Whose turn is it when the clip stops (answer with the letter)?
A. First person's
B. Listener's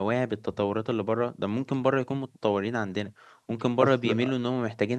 A